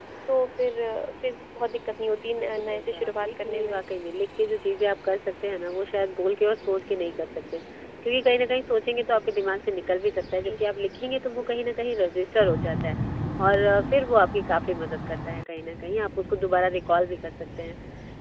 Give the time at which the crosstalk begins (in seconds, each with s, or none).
2.3 s